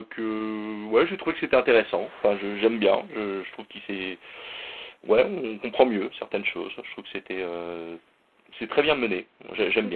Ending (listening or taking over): taking over